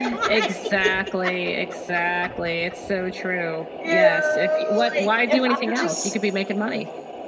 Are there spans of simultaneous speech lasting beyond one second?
Yes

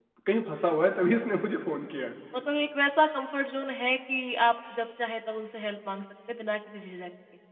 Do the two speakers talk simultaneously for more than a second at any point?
No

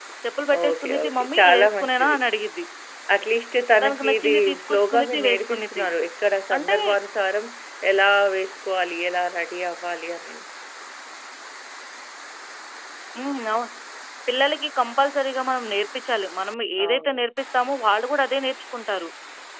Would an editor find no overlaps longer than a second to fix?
No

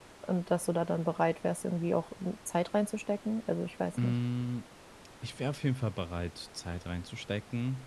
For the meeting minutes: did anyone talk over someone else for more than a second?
No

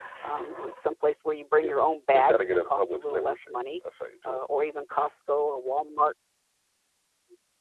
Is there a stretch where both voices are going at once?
Yes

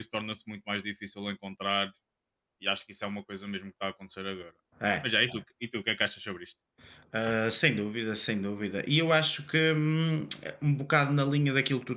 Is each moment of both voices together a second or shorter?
Yes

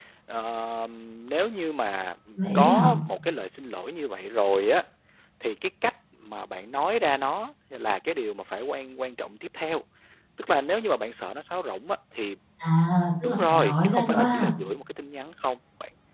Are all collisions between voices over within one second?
No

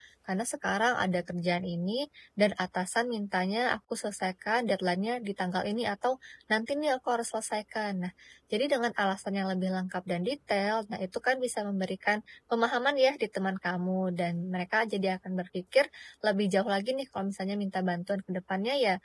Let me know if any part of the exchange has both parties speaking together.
No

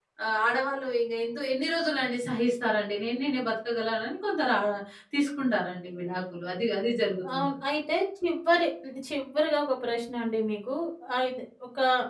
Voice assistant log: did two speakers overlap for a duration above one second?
No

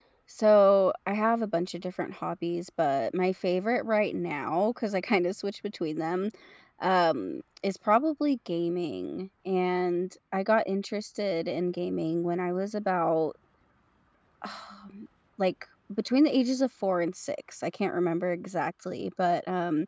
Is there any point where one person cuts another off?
No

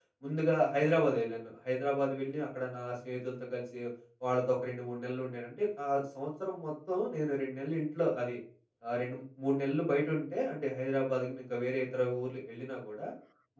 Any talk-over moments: No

